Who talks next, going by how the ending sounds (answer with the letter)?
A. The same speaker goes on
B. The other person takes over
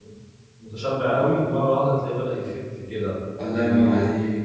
B